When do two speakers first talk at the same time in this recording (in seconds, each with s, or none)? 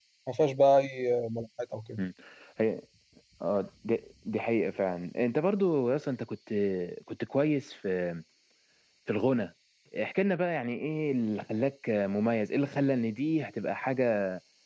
none